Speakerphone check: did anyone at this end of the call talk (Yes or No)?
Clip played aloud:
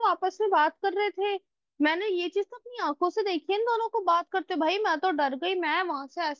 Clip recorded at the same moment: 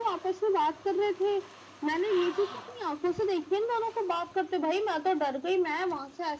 No